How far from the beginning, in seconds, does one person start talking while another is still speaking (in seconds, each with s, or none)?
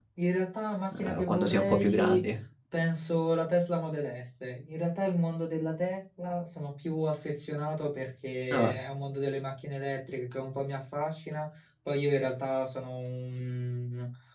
1.0 s